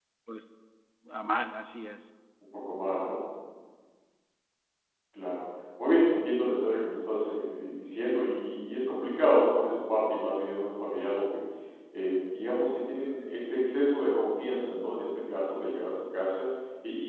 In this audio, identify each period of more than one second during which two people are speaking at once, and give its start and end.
none

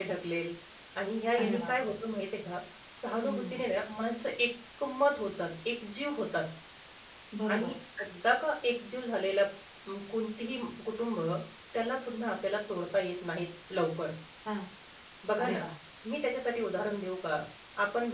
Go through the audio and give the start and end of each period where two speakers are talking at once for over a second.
none

